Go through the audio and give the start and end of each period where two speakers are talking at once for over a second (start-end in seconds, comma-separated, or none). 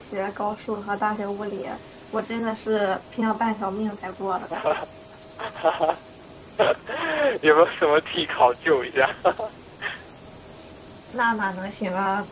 none